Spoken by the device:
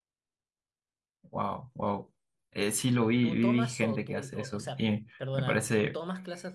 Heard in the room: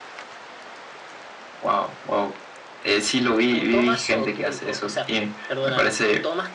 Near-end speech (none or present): none